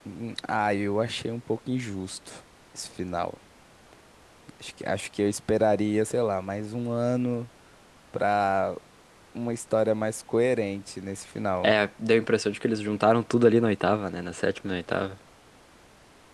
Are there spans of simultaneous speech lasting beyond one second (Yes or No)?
No